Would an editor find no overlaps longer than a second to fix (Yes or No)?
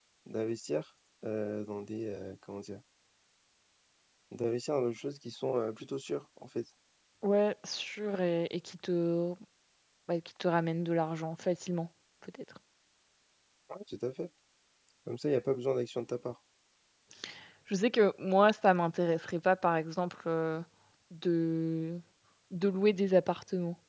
Yes